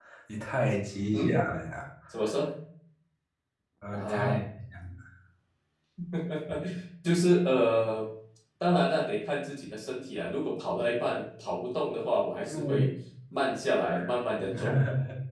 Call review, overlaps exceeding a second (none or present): none